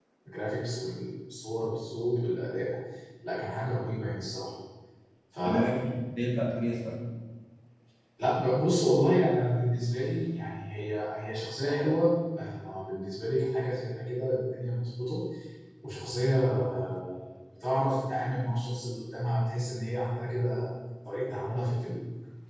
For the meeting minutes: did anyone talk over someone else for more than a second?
No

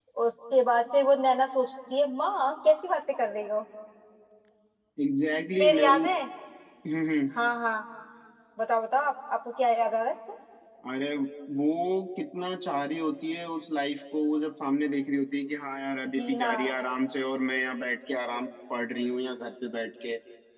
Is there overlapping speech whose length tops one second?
No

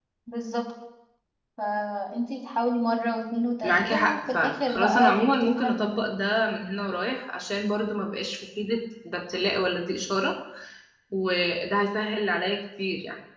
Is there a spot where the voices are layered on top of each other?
Yes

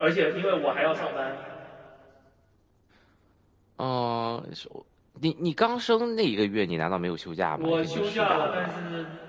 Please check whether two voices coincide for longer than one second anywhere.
Yes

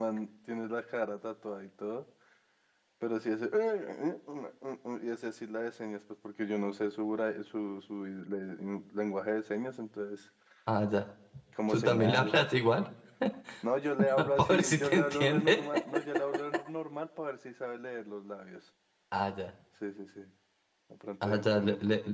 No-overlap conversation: No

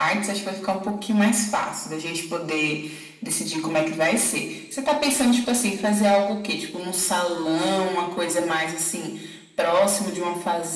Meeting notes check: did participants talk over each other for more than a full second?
No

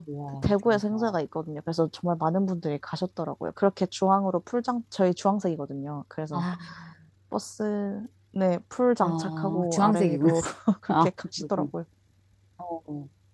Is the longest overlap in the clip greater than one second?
Yes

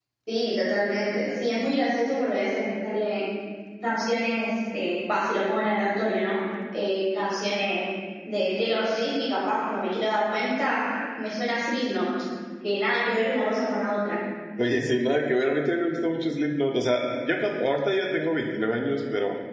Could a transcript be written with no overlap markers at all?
Yes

